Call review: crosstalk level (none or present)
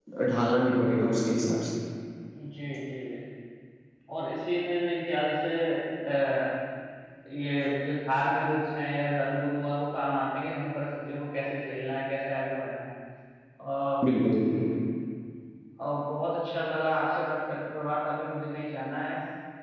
none